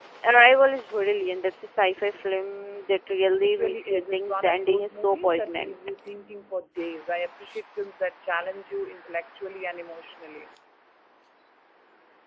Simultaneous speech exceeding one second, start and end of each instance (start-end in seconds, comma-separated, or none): 3.4-5.8